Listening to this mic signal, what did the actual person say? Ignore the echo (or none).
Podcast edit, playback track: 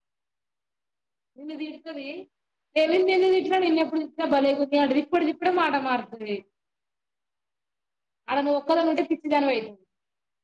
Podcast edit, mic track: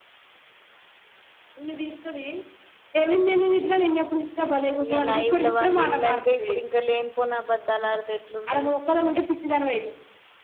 ఇక లైవ్ లో వాళ్ళు ఇన్నాక ఇప్పుడు ఇంకా లేనిపోని అబద్దాలు ఆడితే ఎట్ల ఉంటది